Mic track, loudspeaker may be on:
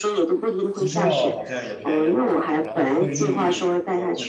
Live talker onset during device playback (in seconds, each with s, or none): 0.7 s